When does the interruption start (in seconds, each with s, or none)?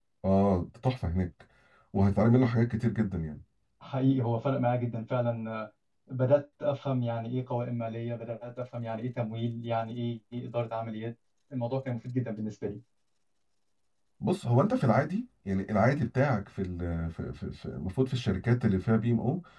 none